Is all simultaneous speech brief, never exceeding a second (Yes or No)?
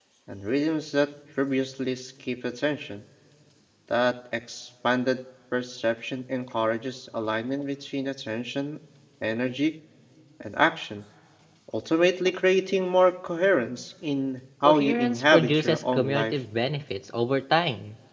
No